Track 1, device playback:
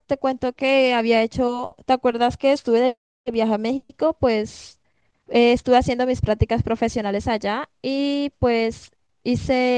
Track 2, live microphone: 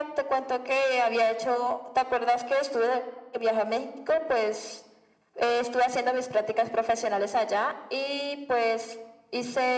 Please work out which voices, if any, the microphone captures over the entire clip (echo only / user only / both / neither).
echo only